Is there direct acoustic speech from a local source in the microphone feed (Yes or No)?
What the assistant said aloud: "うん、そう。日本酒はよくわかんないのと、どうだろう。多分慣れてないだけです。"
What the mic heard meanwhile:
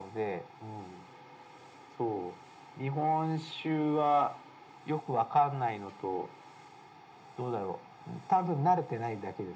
No